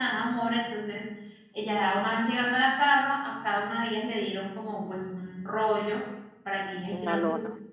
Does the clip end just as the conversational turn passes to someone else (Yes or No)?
No